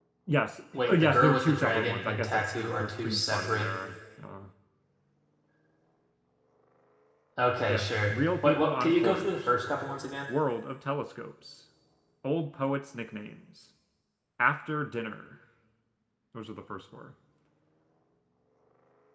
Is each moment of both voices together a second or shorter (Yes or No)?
No